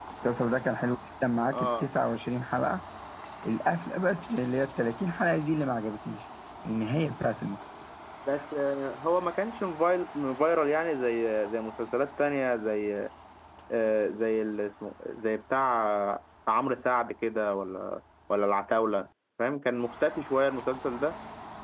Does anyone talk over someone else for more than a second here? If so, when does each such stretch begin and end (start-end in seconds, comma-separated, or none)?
none